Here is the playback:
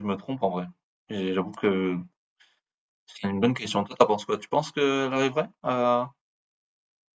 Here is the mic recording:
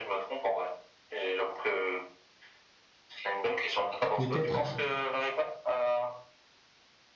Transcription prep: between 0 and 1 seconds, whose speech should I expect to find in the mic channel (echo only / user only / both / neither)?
echo only